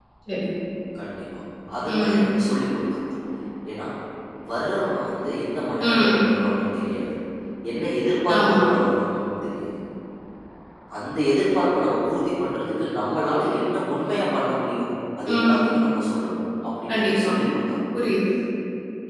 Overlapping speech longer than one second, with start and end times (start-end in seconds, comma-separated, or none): none